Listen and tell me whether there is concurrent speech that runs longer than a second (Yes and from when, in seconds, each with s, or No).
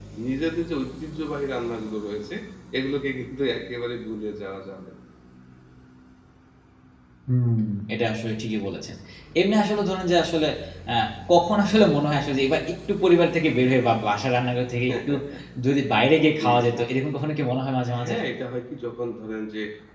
No